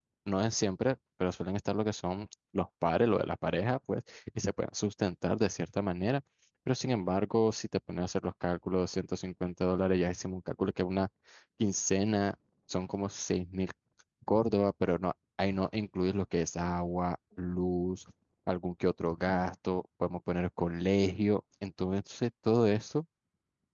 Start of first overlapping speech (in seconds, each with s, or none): none